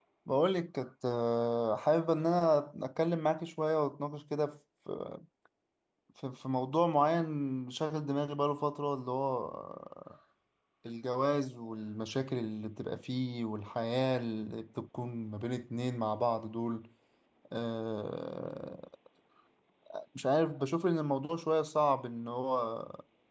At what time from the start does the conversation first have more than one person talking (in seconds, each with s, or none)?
none